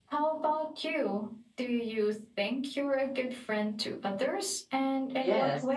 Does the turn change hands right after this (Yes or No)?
Yes